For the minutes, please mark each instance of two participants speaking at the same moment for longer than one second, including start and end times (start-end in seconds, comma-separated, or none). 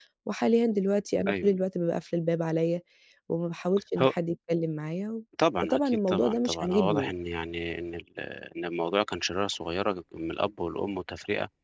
5.6-7.1